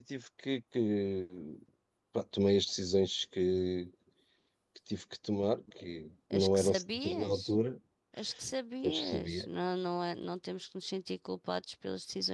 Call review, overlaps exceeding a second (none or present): present